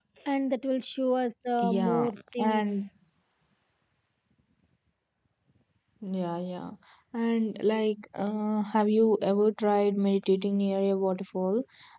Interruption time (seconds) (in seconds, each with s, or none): 1.6 s